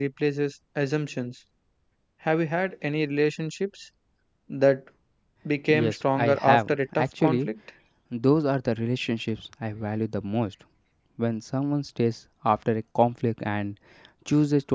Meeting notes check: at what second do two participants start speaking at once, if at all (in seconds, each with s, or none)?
5.7 s